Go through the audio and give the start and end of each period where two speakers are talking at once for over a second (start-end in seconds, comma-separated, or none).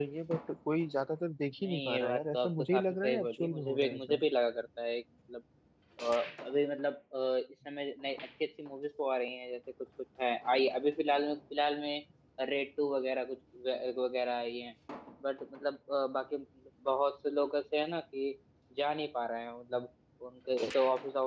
1.6-4.2